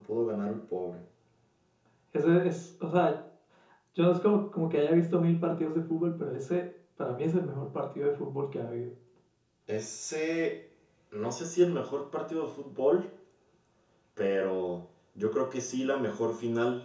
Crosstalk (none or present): none